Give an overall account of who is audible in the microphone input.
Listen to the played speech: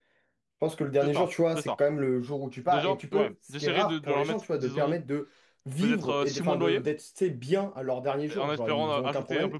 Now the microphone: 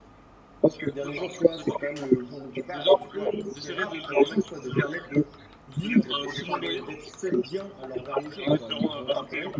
echo only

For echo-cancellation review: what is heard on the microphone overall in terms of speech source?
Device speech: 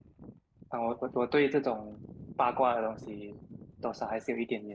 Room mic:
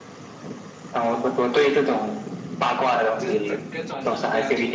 both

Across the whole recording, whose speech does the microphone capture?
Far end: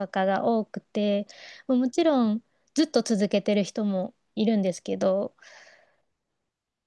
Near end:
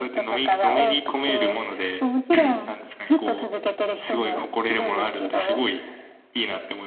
both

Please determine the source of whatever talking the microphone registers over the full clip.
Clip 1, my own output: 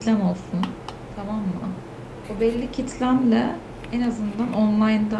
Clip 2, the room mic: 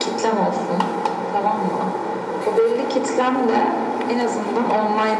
echo only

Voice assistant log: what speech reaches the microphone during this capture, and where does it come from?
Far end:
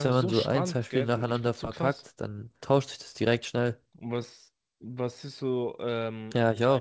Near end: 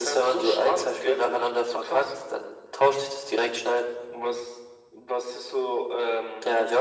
echo only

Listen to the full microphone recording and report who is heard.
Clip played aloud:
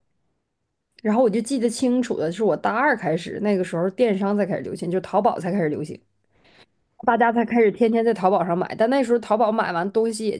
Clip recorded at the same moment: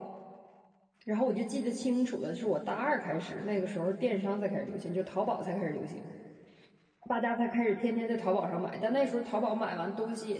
echo only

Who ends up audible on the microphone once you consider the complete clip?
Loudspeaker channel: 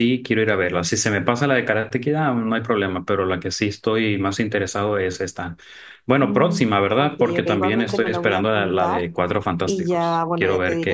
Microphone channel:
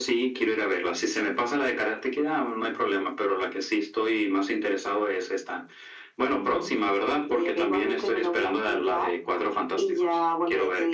echo only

